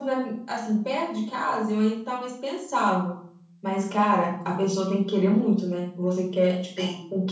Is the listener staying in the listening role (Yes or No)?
Yes